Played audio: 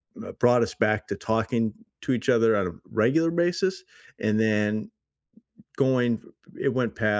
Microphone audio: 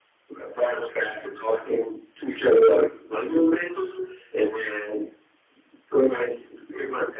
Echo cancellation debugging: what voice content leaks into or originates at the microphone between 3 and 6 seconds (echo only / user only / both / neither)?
echo only